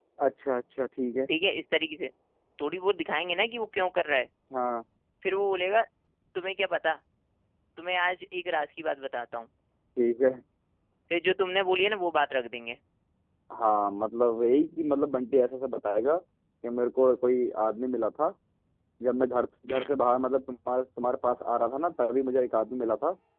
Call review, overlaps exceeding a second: none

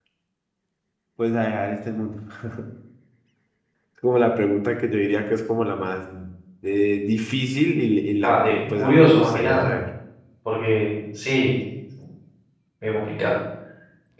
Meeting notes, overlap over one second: present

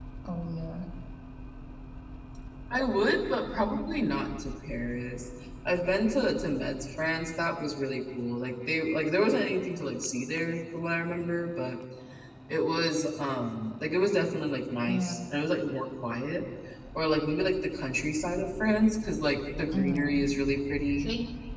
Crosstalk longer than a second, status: none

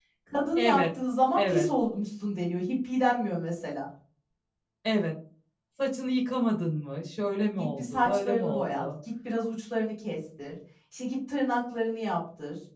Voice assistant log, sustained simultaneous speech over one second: present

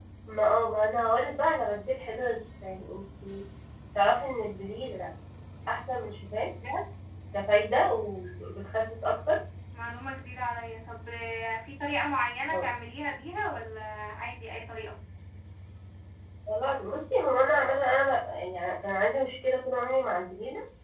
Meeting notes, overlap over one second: none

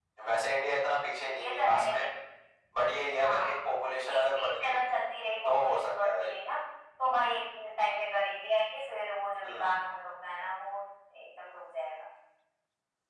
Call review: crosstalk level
present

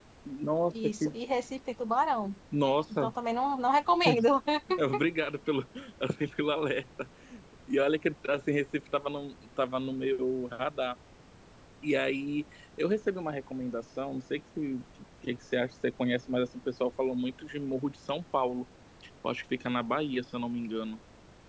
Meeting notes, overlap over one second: none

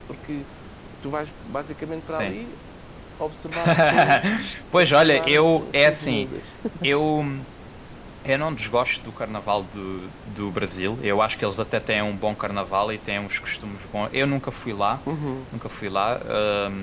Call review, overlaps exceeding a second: present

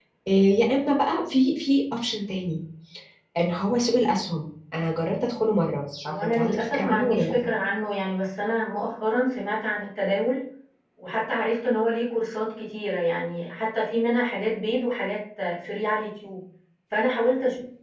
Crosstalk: present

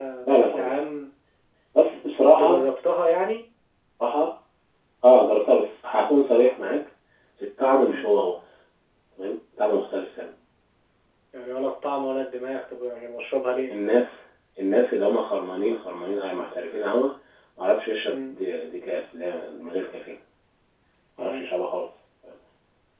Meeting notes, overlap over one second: none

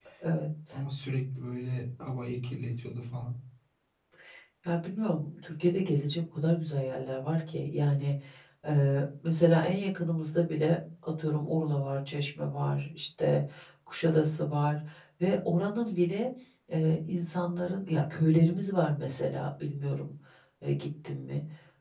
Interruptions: none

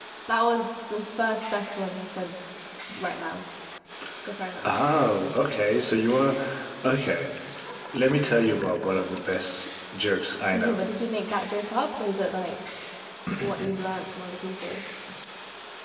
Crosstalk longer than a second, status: none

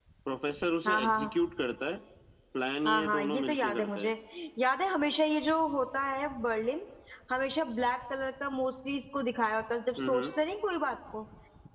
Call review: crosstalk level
present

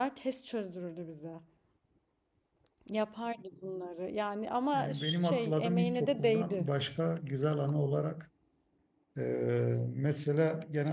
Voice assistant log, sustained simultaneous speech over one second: present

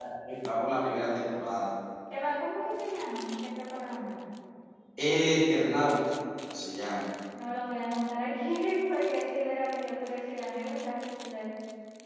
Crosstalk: none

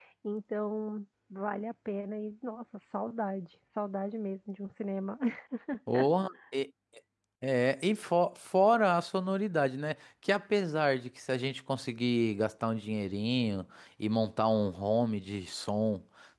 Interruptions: none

